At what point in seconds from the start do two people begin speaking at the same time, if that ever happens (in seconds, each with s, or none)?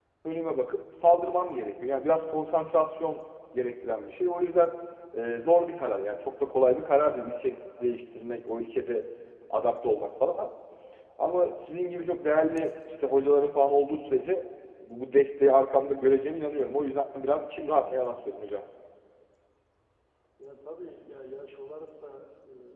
none